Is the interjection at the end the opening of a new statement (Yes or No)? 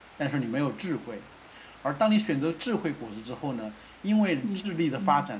No